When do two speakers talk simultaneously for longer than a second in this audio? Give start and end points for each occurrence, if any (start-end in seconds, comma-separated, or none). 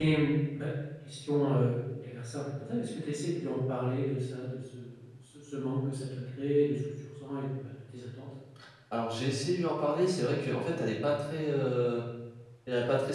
none